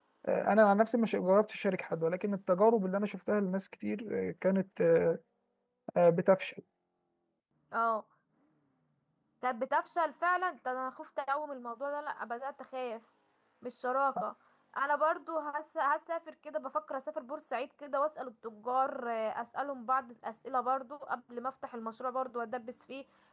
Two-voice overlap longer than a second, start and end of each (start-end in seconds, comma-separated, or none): none